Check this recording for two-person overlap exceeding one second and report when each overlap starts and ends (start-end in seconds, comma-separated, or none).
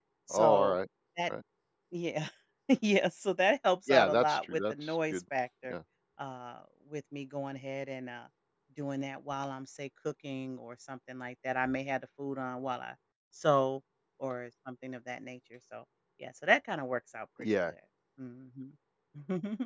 3.9-5.2